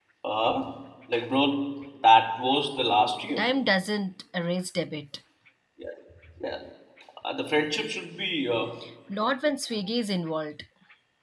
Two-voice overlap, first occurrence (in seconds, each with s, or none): none